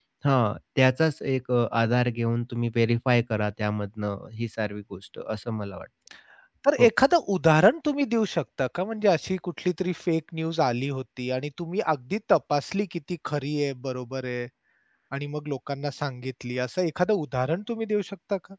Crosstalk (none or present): none